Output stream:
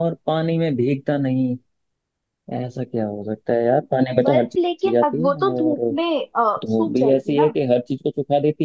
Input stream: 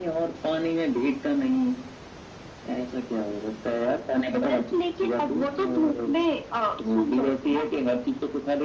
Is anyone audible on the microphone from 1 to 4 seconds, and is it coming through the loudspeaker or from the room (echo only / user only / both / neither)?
echo only